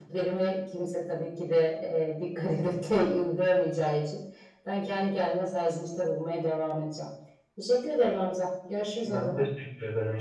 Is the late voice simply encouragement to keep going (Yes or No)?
No